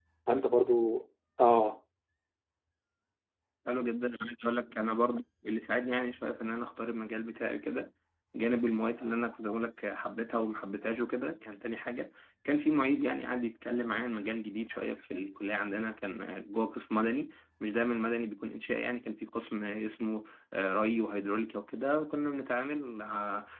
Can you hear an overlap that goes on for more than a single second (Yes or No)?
No